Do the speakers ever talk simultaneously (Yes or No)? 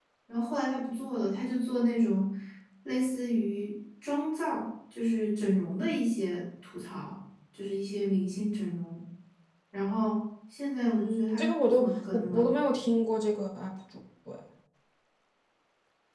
Yes